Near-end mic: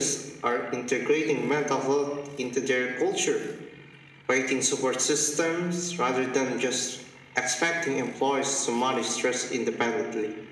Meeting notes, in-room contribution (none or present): none